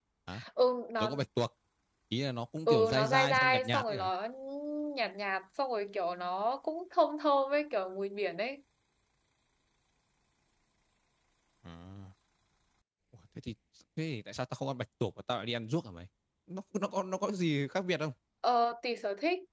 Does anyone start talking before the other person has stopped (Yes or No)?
Yes